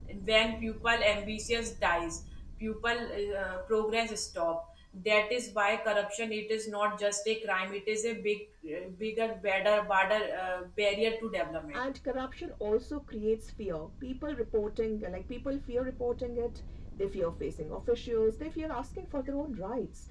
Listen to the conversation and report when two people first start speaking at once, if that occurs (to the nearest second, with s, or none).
none